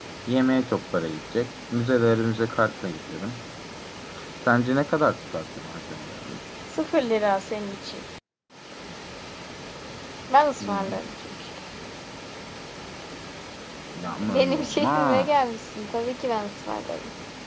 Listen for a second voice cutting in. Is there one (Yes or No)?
Yes